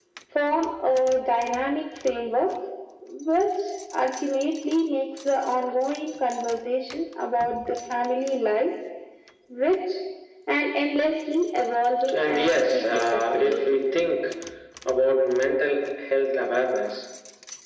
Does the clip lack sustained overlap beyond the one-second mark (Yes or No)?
No